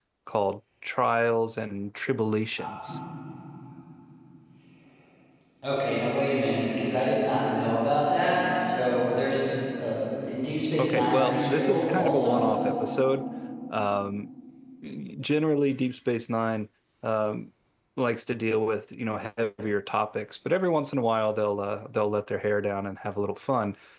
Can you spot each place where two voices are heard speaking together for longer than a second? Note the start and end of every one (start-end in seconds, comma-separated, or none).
10.8-12.5